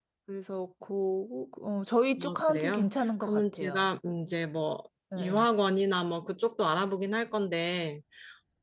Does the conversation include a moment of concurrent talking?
Yes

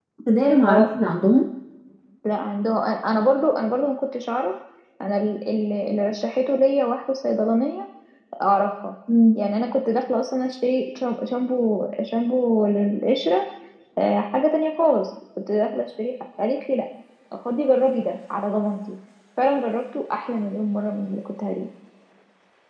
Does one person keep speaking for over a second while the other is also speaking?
No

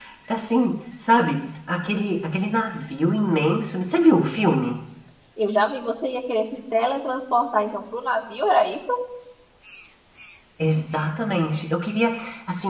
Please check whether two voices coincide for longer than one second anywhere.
No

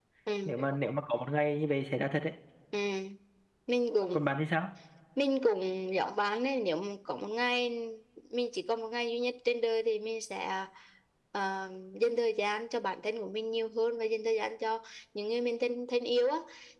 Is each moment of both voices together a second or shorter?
Yes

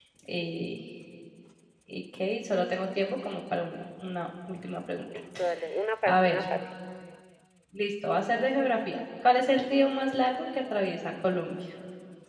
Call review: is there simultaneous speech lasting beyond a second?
No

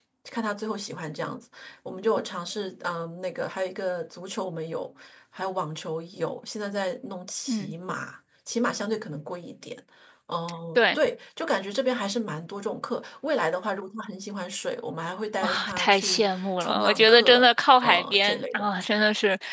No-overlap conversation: No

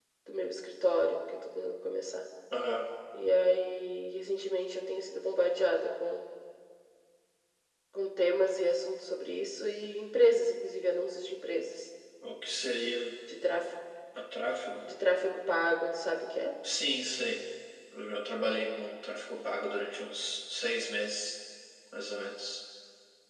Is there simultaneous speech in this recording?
No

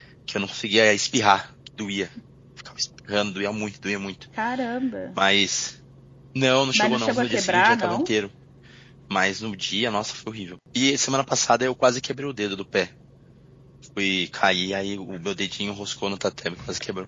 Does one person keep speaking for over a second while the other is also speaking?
Yes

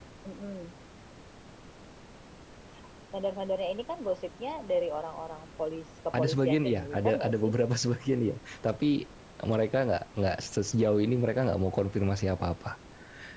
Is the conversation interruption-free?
No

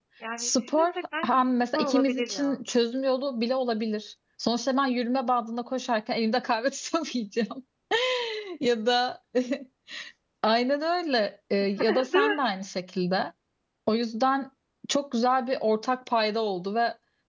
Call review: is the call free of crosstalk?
No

